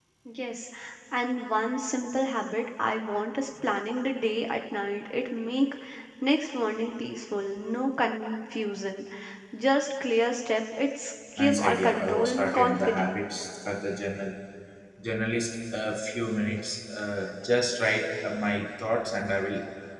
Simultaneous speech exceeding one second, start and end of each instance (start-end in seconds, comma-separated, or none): 11.4-13.2